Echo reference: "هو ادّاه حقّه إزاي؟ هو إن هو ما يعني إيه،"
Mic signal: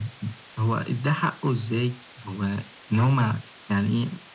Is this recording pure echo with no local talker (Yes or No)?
Yes